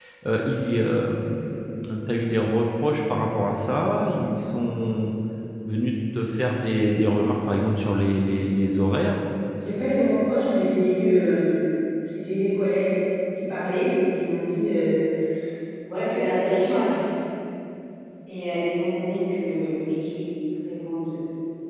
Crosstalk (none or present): none